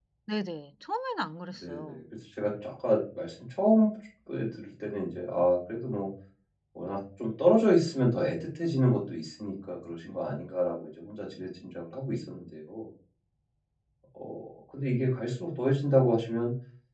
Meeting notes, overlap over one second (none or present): none